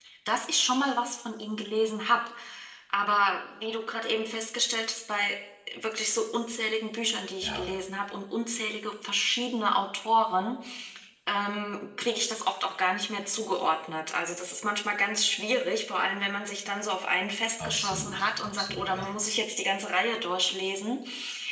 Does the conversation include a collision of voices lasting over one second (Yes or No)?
Yes